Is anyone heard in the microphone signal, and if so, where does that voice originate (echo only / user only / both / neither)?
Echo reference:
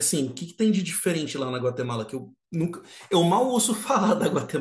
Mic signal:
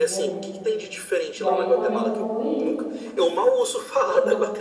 both